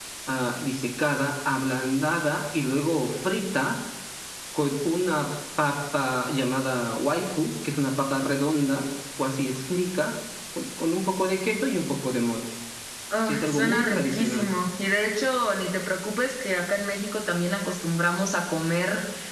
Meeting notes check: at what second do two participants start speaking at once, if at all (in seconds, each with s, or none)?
13.3 s